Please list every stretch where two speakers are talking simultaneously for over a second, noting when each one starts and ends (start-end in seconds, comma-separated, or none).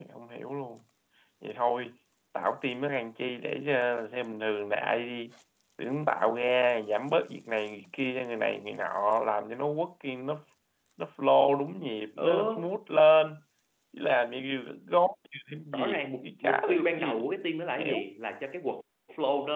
15.7-17.3